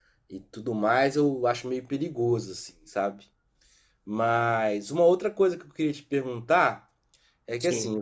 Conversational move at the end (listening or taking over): listening